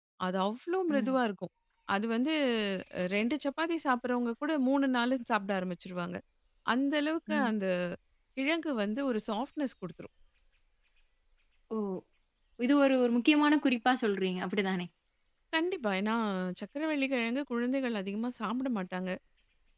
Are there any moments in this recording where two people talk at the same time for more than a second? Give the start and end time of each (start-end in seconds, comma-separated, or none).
none